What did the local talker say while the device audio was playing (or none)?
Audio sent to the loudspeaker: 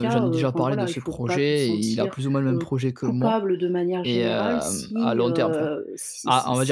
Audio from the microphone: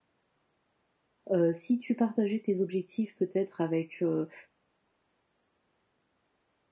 heu, si tu partageais tes objectifs, peut-être avec, heu